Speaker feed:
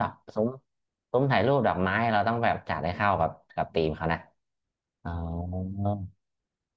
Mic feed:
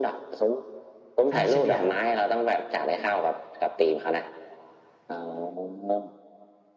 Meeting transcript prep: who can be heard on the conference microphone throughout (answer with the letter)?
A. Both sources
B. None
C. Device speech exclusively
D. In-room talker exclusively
A